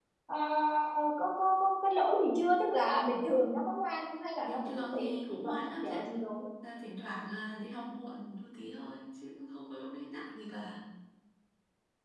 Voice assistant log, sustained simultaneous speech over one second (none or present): present